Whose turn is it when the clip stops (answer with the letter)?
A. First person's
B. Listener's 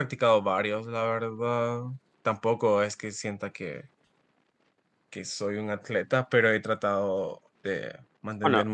A